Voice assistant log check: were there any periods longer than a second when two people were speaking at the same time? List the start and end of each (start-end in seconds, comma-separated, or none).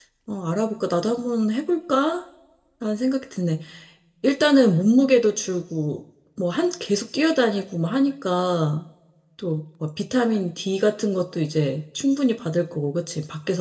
none